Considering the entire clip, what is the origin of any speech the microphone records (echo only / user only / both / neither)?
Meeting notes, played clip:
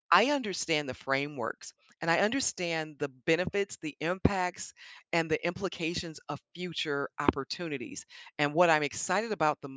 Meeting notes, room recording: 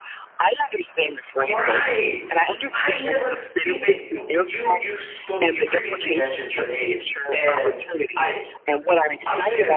both